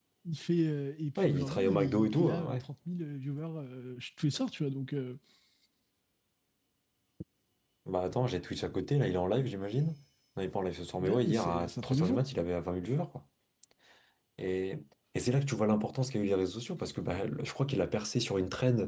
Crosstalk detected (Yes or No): Yes